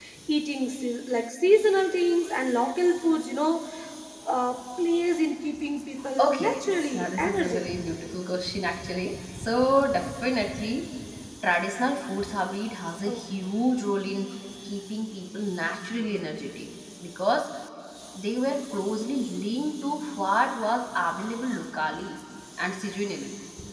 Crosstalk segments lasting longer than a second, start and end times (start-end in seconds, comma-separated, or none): 6.2-7.7